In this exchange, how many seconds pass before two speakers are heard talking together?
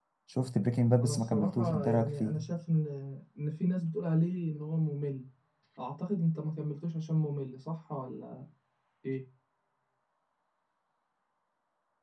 1 s

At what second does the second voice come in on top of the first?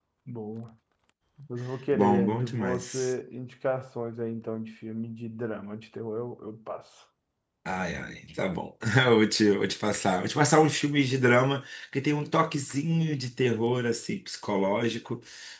2 s

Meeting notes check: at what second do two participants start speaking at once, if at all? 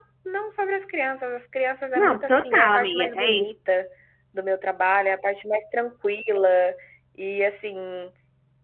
2 s

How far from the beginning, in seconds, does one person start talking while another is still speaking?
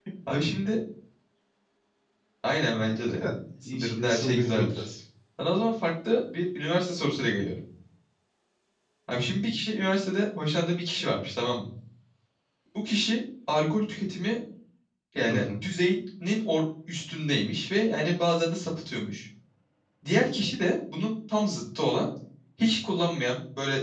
3 s

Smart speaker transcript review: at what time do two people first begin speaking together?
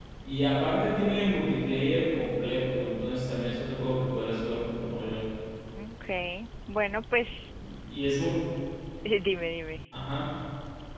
none

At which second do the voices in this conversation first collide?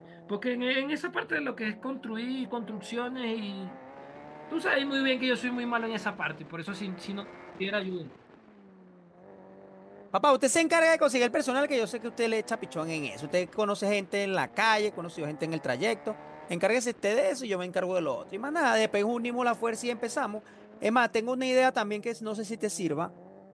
none

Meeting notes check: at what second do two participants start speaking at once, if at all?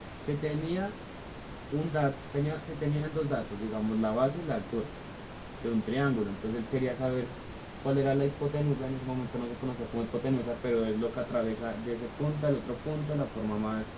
none

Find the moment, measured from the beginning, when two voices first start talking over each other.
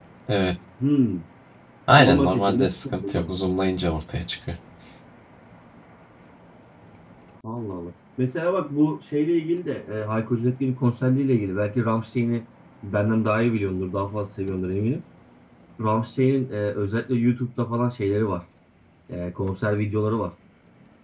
2 s

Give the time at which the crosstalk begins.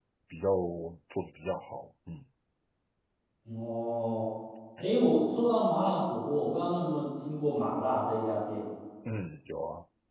none

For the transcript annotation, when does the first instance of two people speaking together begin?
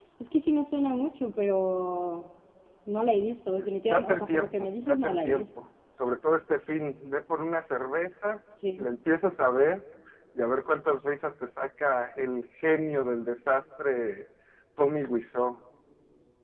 4 s

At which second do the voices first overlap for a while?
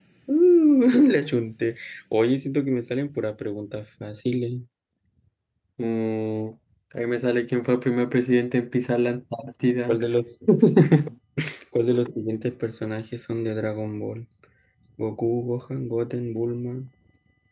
none

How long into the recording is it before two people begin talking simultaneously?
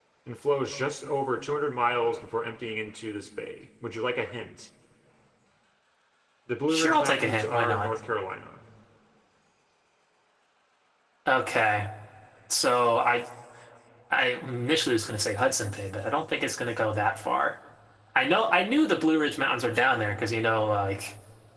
7 s

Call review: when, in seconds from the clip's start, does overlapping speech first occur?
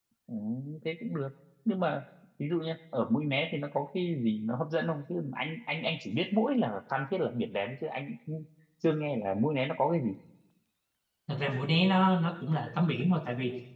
none

